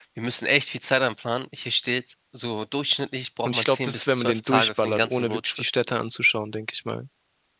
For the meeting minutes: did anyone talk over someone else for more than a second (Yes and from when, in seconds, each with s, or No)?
Yes, from 3.5 s